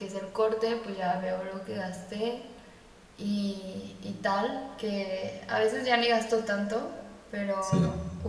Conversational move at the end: listening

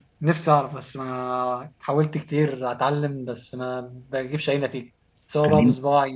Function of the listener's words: listening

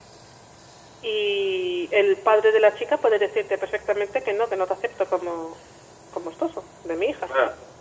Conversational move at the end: taking over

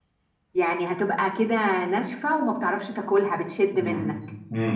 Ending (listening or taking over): taking over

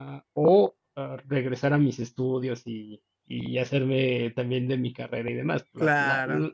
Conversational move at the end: listening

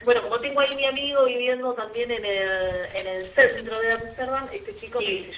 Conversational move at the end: listening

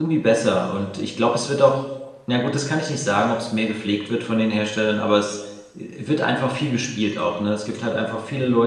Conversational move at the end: listening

